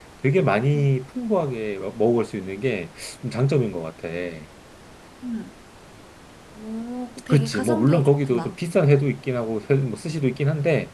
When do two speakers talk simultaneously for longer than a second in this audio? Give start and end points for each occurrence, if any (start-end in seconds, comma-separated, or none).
7.3-8.5